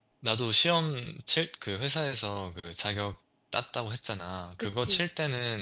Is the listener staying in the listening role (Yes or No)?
Yes